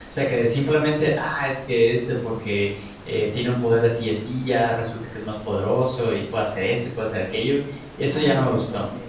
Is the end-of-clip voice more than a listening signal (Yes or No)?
Yes